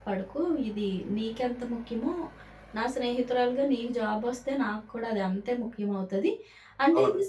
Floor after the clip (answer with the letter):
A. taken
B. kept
B